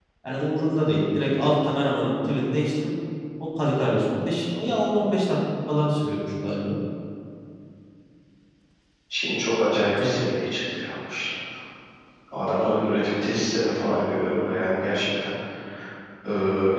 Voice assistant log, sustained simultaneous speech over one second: none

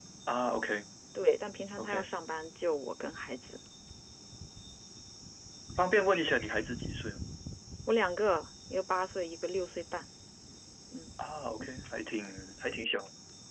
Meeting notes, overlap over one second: none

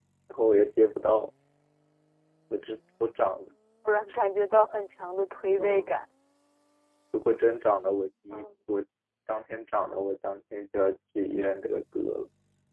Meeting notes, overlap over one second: none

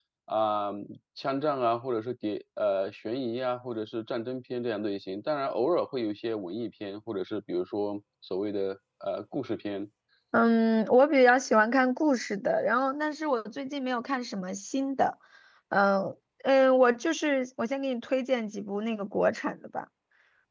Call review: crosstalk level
none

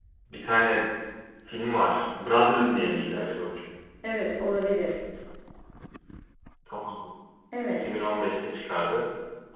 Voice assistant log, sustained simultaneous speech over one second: none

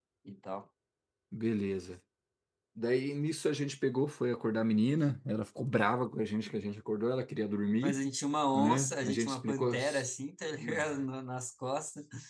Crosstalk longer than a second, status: present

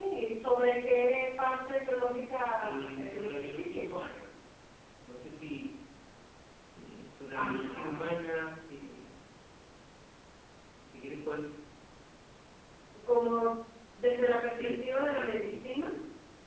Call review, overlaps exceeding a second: present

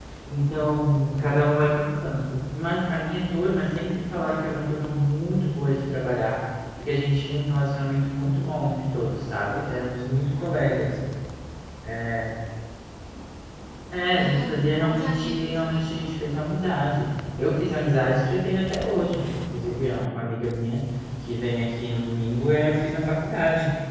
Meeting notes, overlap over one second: present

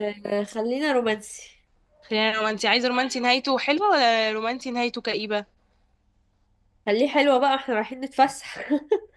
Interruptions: none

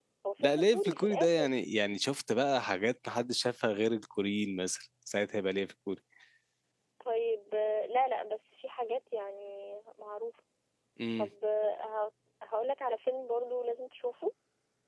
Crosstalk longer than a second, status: present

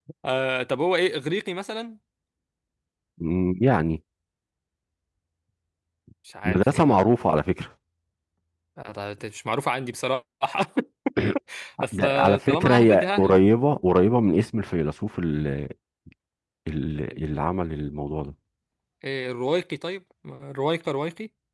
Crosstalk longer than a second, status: present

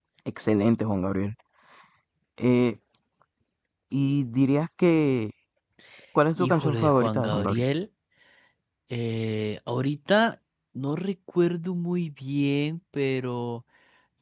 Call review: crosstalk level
present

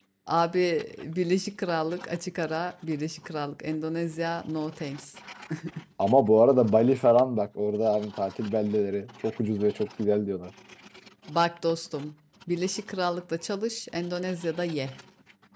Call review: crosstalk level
none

